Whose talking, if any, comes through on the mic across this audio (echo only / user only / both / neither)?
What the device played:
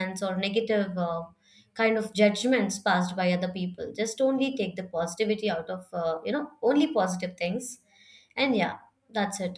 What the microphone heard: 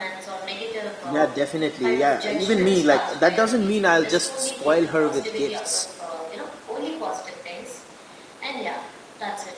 both